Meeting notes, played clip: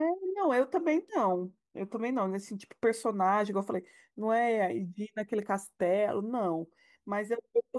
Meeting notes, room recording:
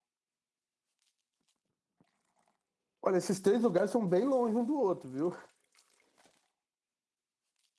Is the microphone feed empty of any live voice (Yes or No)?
No